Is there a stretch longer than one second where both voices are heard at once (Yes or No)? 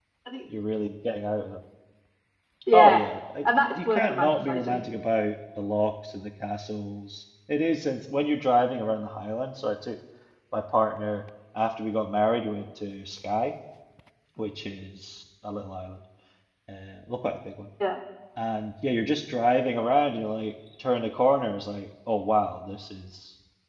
Yes